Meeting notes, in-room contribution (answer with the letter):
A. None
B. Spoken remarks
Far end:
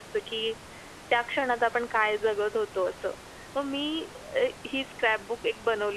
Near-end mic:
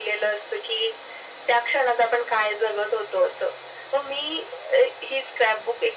A